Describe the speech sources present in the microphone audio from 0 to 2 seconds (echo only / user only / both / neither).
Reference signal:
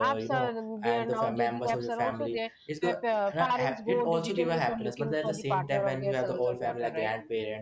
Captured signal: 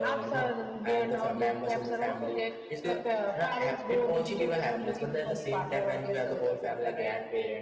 echo only